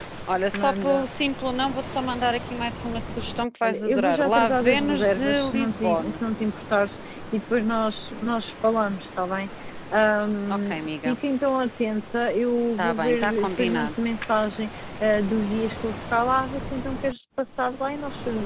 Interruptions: present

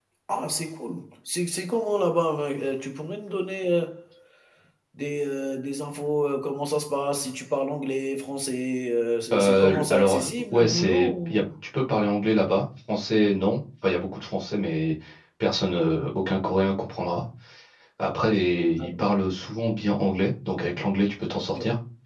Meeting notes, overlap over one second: present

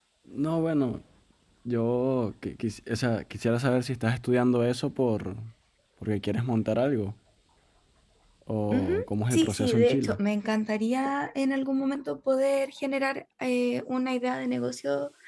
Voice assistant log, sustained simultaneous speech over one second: present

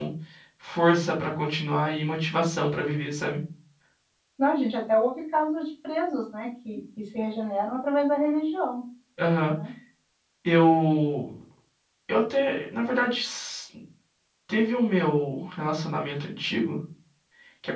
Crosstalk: none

